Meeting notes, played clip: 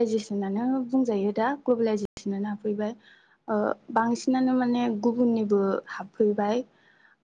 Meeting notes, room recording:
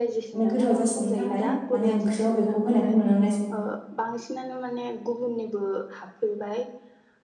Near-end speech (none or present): present